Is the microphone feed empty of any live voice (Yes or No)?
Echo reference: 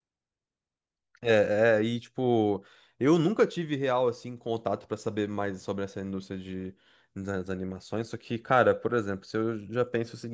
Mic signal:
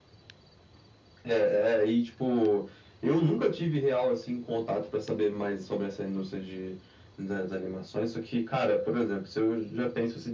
Yes